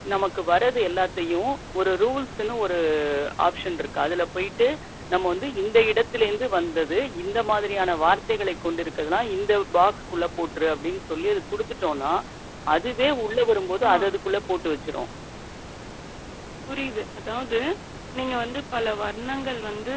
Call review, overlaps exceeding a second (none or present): none